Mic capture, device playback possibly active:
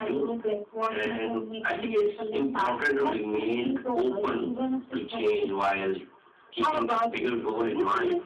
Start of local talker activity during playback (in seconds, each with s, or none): none